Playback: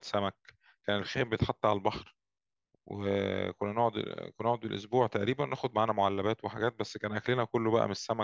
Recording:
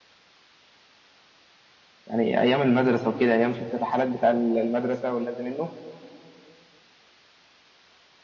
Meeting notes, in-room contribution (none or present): present